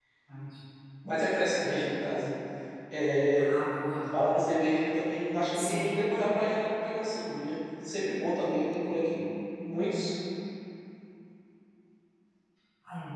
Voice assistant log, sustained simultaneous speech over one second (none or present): none